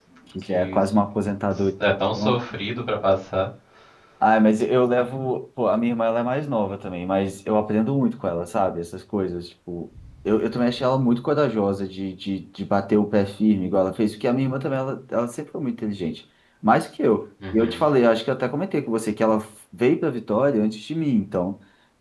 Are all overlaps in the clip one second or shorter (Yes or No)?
Yes